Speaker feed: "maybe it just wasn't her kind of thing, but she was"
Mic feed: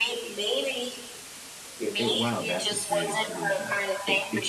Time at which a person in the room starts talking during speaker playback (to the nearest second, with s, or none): 2 s